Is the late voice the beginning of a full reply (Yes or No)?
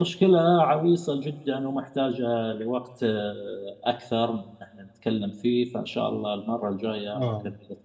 Yes